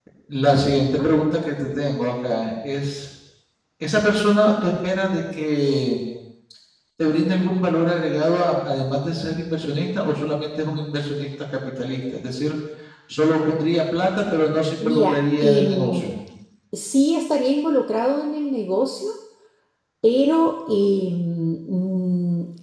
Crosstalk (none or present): present